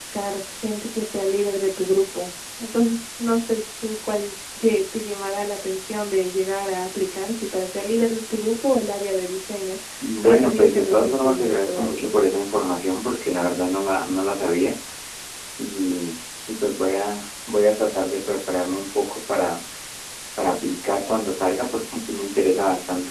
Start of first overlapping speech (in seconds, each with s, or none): 10.2 s